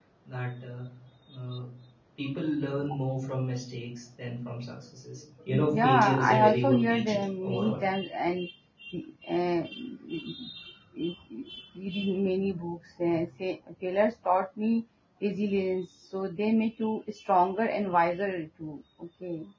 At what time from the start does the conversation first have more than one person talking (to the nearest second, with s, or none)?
6 s